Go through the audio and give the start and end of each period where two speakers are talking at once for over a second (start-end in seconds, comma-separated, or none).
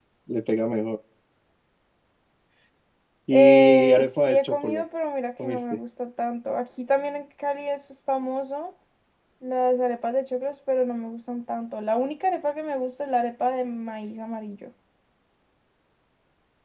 3.3-4.8